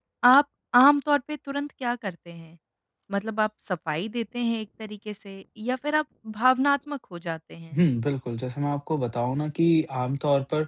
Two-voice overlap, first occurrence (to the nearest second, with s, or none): none